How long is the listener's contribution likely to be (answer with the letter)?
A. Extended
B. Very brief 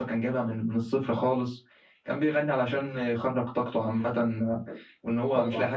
B